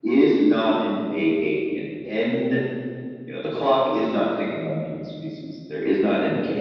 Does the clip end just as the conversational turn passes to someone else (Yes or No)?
Yes